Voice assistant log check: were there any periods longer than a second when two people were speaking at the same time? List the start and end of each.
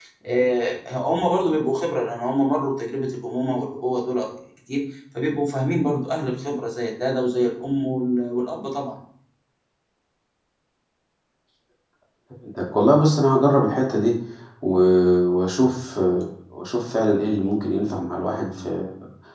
none

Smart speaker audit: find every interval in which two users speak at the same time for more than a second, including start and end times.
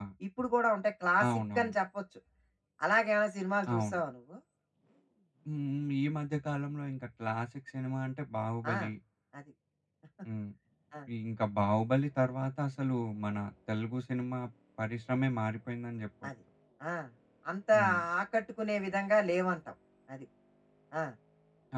none

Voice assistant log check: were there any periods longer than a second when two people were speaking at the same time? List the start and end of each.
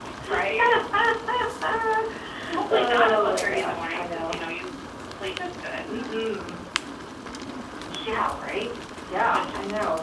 2.7-4.3

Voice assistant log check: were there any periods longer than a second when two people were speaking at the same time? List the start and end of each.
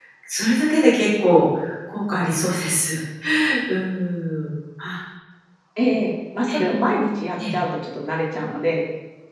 none

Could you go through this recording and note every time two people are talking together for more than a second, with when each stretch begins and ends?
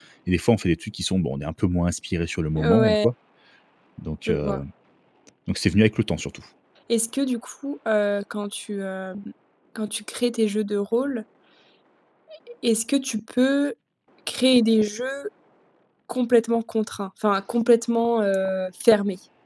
none

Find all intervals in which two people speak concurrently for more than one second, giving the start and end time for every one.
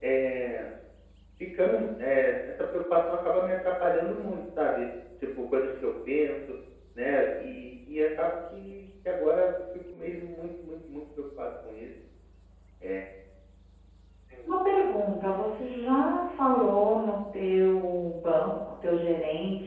none

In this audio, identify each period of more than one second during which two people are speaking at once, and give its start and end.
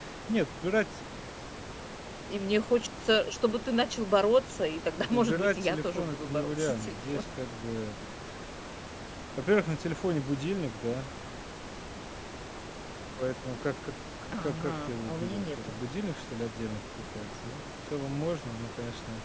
5.1-7.2, 14.3-15.8

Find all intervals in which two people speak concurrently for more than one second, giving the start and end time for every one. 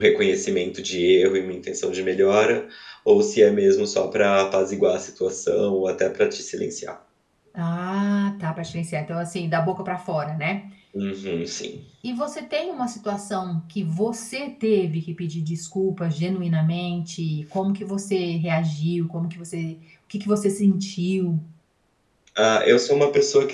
none

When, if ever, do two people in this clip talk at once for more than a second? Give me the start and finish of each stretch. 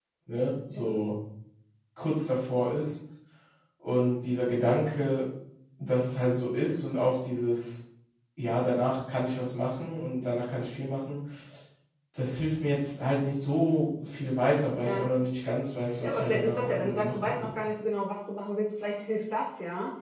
16.0-17.5

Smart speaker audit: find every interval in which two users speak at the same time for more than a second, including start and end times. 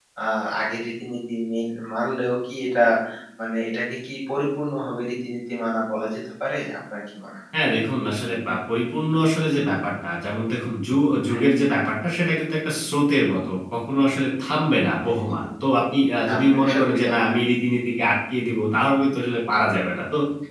16.2-17.6

